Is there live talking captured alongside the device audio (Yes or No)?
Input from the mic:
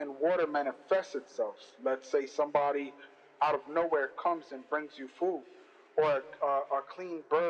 No